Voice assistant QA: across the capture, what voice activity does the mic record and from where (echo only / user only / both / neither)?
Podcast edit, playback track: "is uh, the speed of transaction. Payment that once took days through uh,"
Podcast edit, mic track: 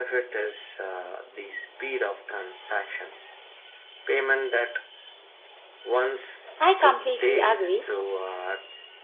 both